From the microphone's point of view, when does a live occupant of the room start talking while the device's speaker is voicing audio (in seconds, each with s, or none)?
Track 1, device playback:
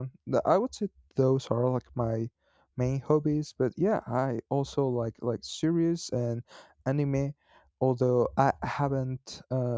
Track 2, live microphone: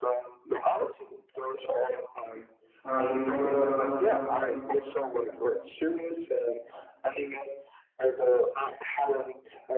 2.8 s